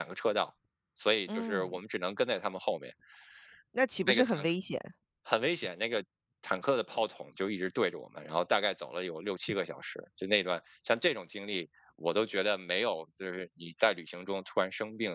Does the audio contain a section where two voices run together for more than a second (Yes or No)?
No